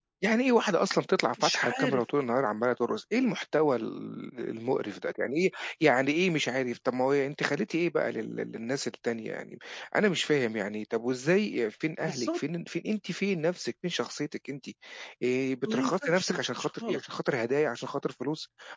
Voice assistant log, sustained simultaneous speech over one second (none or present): present